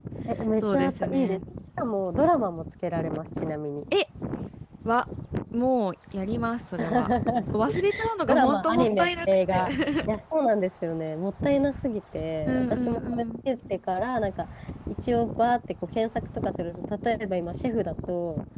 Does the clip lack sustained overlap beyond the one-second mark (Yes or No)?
No